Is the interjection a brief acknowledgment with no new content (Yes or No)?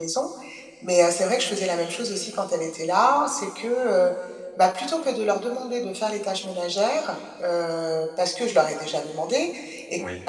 Yes